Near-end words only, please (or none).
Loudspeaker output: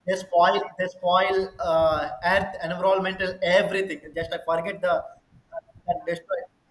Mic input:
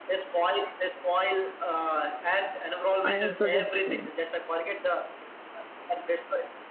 I also just went-